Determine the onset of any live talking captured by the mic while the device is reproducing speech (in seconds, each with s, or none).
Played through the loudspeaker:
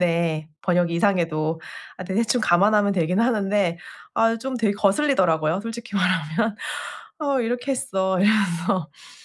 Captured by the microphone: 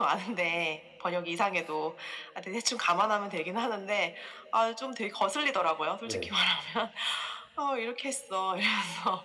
6.0 s